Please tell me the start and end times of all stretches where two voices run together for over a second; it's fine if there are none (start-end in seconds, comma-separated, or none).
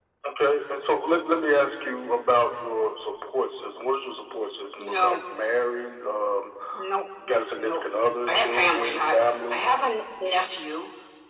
8.3-9.7